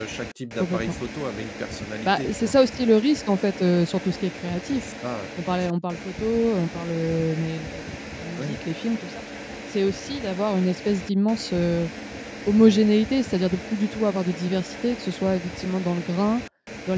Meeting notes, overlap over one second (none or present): none